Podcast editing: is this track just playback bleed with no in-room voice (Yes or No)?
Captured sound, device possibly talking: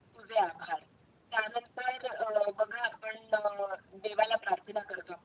Yes